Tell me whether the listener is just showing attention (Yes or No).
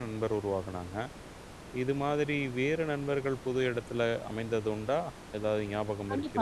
No